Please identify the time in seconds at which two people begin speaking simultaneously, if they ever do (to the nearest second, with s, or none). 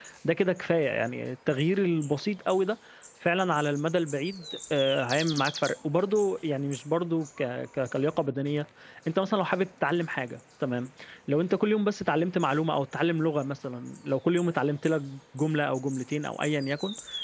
none